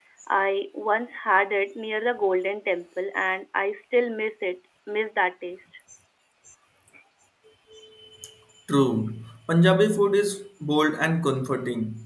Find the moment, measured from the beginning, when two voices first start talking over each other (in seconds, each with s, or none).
none